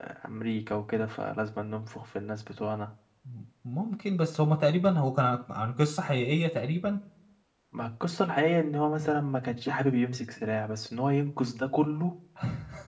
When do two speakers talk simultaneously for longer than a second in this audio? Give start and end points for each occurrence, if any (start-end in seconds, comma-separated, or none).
none